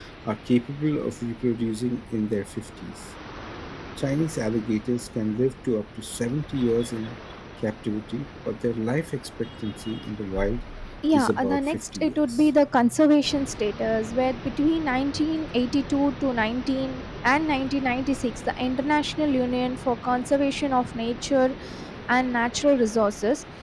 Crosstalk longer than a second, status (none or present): present